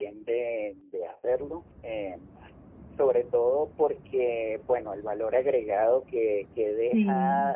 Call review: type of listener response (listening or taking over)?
listening